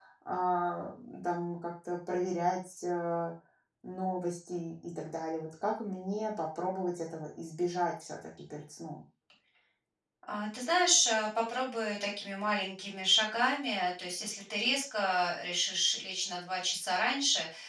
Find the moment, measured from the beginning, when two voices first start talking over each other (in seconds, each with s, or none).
none